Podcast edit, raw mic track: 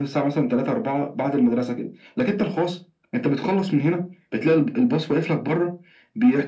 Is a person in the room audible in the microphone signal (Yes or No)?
No